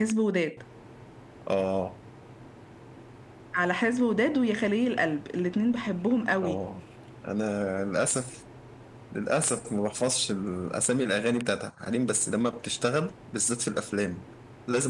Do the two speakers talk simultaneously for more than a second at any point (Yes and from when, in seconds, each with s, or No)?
No